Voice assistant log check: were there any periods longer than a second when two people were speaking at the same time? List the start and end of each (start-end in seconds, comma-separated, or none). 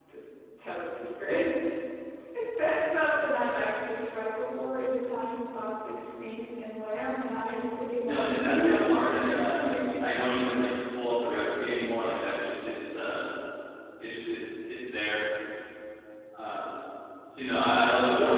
8.0-9.6